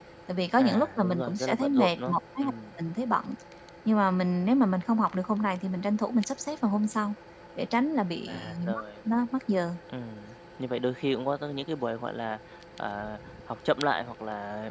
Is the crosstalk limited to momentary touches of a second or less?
No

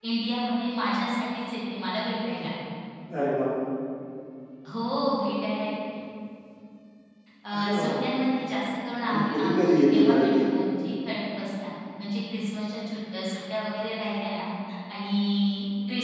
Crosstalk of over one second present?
Yes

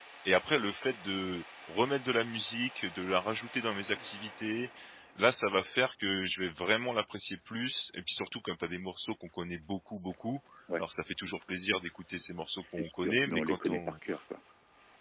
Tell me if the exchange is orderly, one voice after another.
No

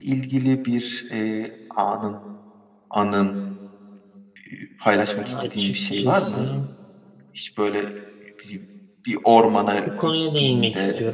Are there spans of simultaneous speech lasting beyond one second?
Yes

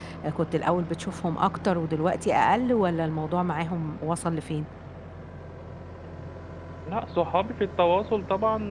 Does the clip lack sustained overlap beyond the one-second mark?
Yes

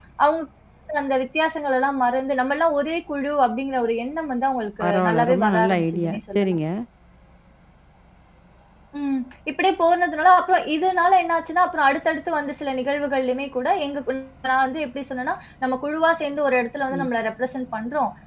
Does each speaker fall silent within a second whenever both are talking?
No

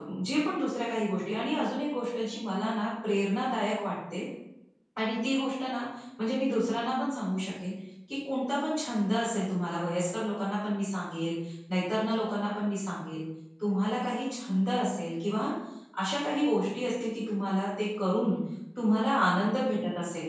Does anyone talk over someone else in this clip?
No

